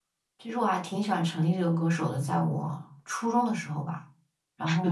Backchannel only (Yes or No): No